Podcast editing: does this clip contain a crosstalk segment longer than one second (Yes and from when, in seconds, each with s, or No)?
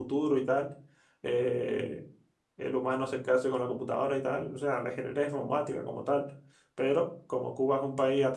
No